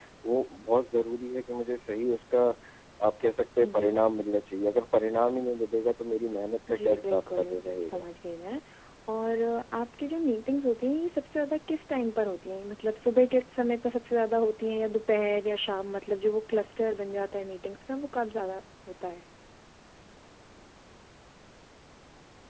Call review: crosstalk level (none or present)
present